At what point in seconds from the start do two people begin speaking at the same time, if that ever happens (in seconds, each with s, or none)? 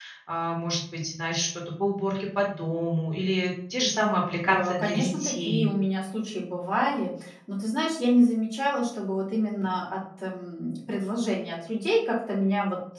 4.4 s